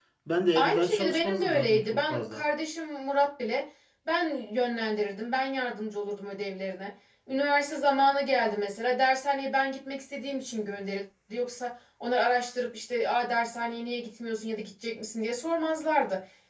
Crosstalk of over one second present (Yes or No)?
Yes